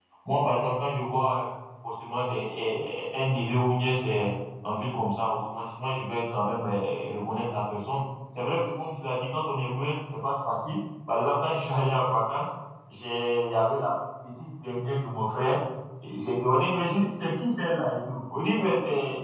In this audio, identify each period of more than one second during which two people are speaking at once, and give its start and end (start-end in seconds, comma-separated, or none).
none